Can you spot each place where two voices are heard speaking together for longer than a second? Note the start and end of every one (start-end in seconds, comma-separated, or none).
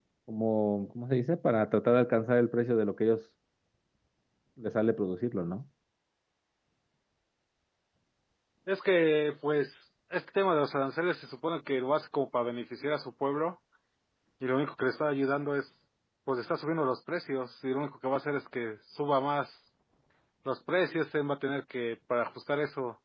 none